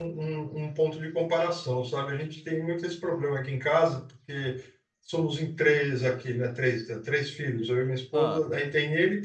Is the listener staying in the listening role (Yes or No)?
Yes